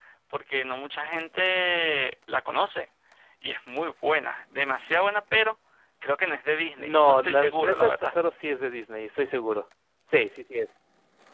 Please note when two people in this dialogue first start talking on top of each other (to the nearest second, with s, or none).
7 s